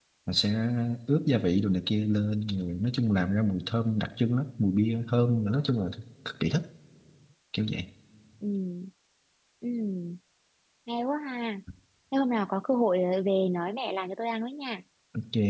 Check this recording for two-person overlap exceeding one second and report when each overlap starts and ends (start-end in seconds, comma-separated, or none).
none